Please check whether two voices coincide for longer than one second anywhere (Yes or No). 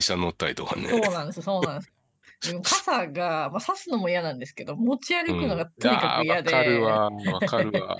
Yes